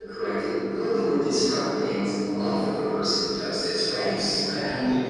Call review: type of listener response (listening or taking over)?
taking over